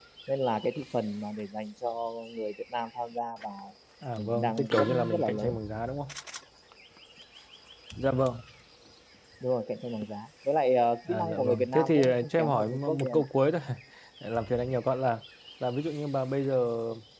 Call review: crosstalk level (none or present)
present